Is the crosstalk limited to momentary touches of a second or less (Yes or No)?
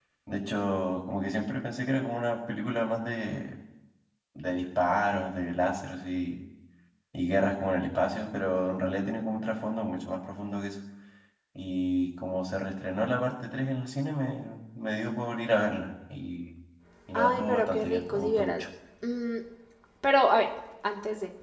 No